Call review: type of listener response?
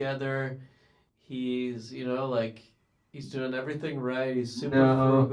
listening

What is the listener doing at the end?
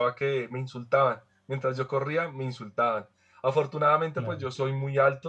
listening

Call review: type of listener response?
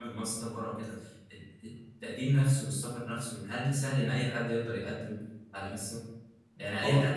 listening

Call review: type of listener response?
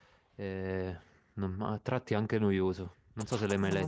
taking over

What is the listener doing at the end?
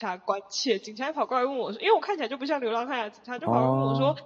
listening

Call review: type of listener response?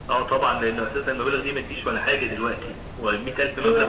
listening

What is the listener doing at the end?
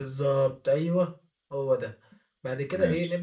listening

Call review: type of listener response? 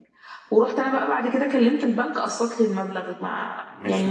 taking over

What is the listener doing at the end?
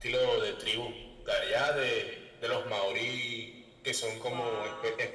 listening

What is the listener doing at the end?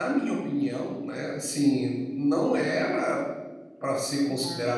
listening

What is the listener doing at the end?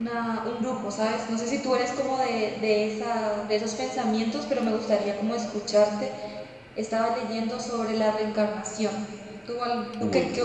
listening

